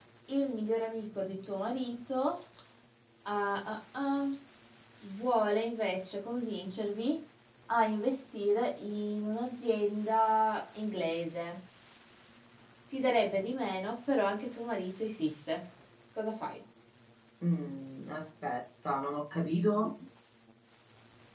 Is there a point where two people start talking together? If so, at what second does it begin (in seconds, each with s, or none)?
none